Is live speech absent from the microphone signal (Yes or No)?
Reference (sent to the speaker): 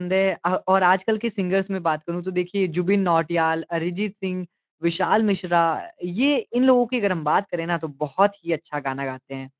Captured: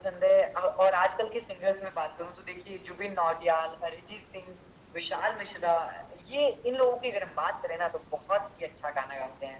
Yes